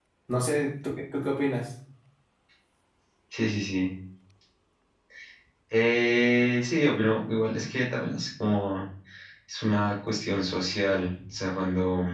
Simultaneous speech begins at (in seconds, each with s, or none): none